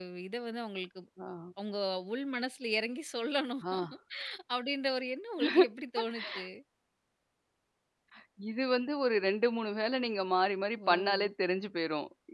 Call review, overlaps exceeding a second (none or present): none